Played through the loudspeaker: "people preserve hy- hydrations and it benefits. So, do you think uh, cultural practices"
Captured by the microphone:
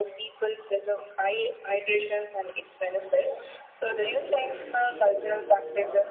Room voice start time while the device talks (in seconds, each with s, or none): 3.9 s